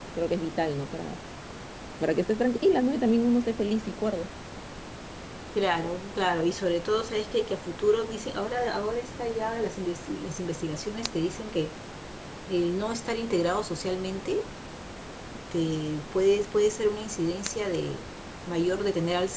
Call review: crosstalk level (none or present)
none